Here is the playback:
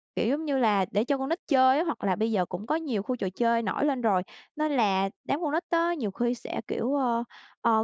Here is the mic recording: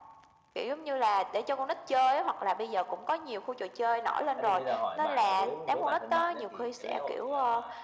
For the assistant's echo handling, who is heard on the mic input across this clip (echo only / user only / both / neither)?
both